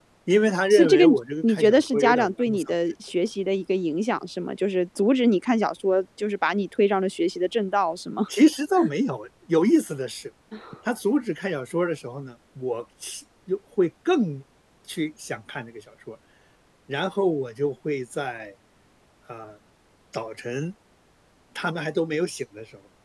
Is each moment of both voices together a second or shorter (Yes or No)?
No